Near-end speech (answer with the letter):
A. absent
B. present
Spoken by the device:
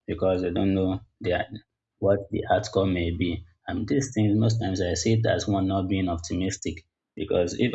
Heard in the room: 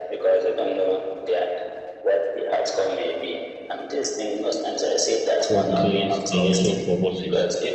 B